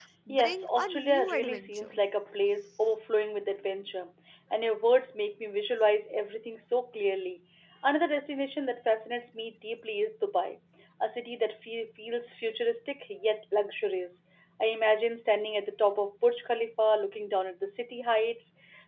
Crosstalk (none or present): present